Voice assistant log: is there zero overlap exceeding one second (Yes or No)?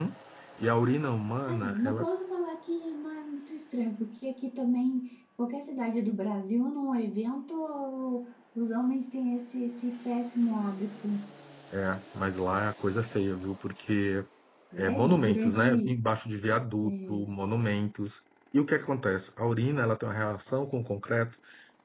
No